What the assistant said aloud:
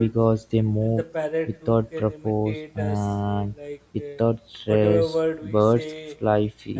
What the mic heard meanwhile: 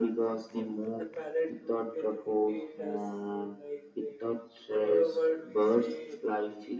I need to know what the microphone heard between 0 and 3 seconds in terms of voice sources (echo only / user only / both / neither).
echo only